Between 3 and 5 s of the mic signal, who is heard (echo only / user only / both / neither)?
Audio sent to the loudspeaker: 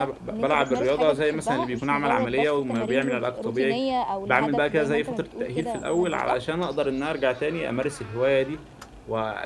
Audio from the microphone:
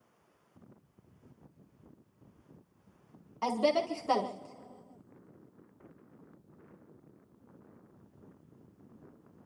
user only